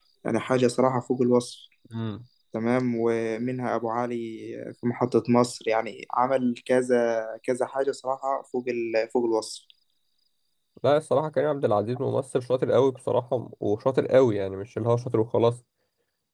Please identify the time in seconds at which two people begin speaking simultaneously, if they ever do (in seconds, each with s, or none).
none